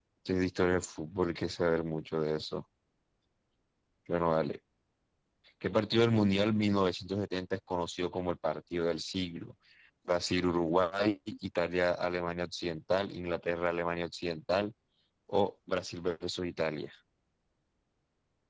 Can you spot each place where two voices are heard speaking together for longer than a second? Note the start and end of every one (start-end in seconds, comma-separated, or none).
none